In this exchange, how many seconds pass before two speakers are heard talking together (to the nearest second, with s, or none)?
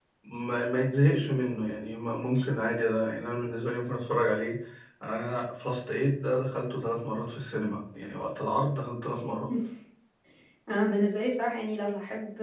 none